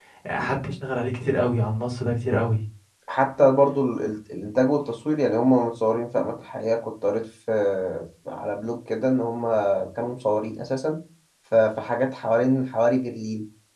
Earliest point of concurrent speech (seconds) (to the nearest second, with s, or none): none